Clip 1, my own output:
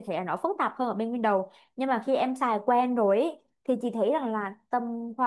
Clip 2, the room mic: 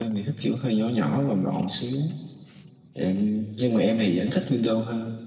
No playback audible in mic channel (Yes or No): Yes